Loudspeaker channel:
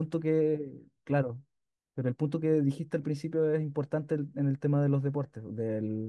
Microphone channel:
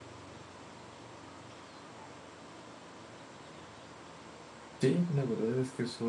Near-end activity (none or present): present